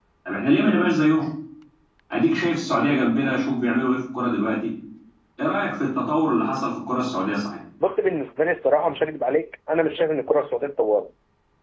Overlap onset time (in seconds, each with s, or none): none